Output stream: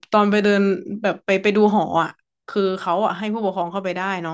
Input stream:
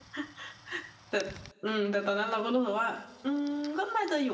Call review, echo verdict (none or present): none